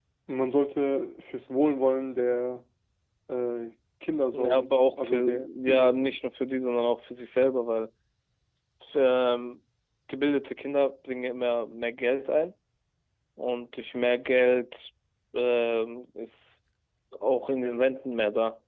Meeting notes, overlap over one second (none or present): present